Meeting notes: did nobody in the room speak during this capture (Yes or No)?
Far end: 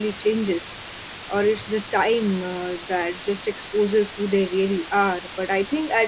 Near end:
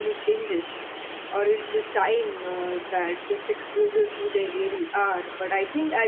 Yes